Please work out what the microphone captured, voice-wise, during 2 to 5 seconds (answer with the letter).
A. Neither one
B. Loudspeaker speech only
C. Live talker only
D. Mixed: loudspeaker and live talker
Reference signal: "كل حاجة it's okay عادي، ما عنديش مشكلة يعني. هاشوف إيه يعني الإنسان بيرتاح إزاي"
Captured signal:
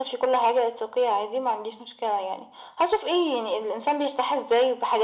B